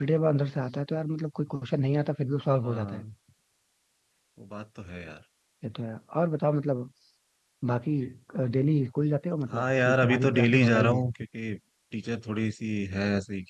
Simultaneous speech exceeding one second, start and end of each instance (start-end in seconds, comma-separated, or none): 9.5-11.0